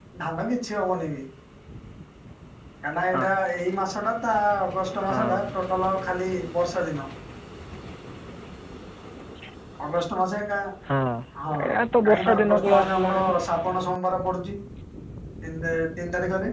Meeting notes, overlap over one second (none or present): present